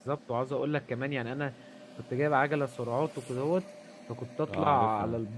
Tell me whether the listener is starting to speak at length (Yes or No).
No